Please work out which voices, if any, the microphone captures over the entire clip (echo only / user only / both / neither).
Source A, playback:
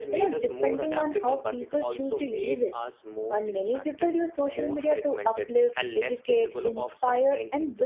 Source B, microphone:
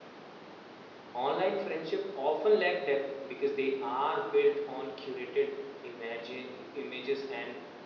user only